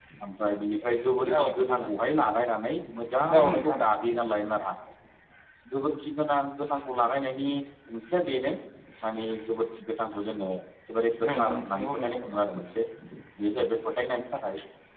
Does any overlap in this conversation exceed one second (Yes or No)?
Yes